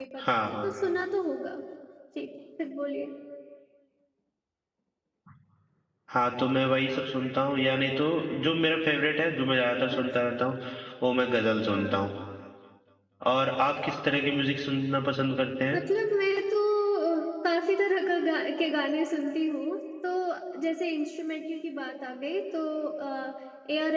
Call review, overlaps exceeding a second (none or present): none